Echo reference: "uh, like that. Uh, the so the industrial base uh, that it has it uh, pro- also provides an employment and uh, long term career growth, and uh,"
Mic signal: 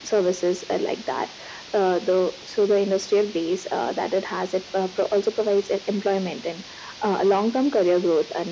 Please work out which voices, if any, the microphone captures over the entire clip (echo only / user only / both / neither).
echo only